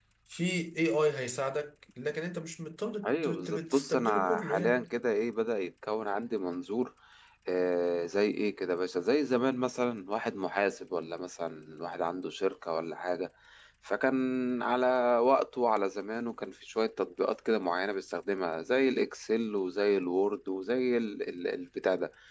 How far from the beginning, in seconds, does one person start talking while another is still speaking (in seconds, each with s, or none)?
3.0 s